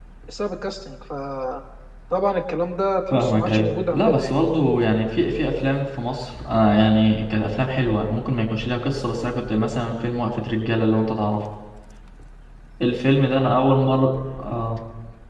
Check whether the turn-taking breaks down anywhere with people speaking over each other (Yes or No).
Yes